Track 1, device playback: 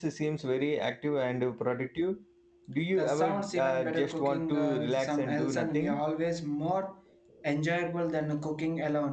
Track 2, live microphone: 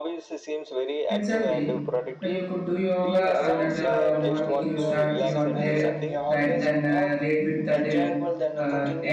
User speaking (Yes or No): Yes